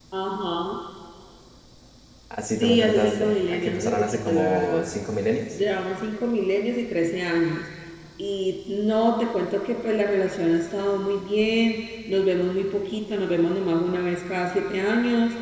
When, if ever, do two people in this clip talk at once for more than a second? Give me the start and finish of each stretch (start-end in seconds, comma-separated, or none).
2.6-4.8